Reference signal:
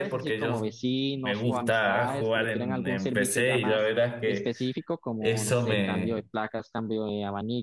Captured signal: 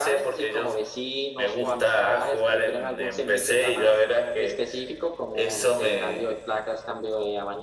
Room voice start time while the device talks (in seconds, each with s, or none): none